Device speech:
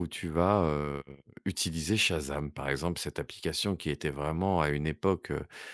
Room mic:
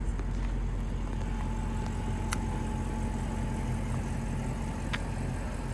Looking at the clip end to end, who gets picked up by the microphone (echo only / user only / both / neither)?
neither